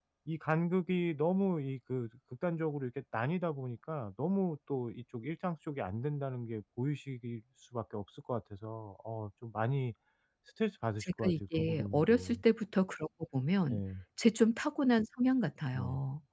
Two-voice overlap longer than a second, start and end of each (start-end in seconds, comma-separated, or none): 11.0-12.4